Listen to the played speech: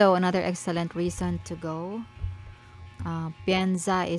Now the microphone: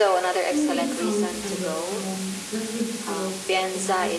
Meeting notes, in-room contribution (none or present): present